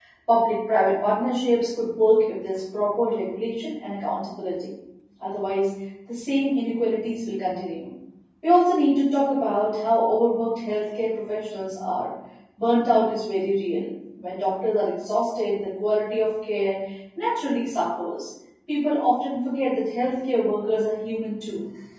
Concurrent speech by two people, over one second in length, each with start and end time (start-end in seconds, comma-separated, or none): none